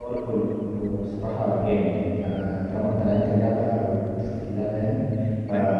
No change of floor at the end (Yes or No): Yes